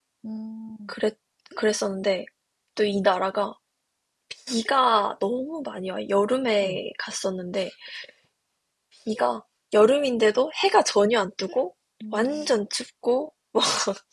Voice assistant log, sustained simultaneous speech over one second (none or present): none